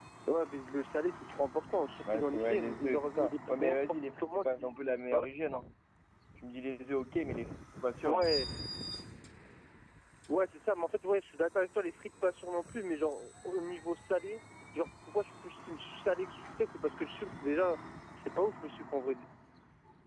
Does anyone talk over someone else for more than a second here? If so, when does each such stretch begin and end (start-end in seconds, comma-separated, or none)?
2.0-4.7